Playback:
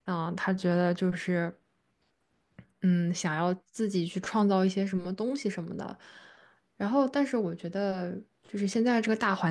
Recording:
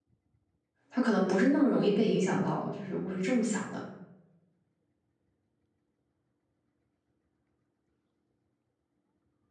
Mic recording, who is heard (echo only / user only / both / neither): user only